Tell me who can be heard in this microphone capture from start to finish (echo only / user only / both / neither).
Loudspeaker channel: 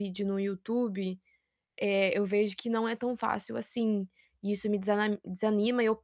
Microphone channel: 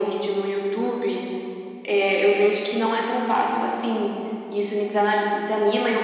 echo only